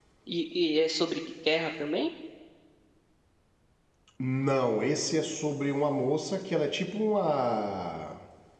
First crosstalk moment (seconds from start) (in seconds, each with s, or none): none